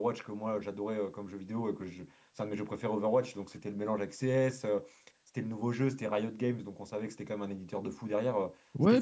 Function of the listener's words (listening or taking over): taking over